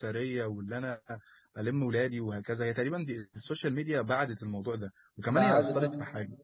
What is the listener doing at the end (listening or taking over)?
listening